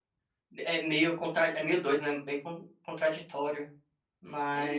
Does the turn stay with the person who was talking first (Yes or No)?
No